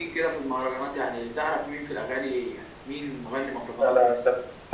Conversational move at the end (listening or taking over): taking over